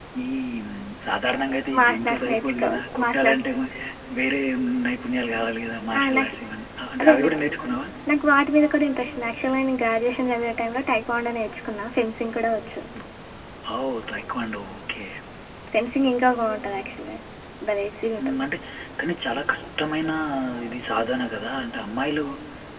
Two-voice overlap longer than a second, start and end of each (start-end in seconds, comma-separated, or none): 1.8-3.5